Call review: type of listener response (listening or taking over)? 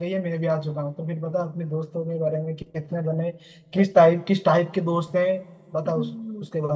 taking over